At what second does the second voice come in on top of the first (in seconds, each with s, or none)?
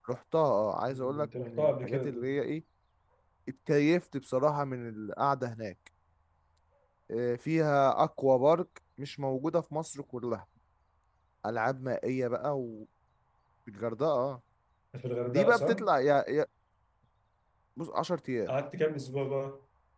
0.9 s